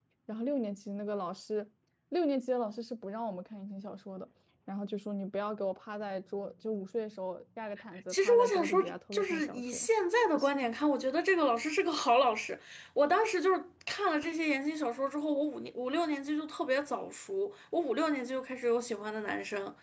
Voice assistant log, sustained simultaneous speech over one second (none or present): present